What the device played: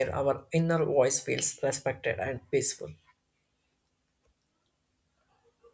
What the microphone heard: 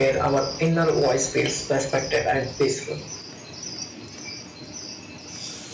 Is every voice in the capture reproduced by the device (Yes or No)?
Yes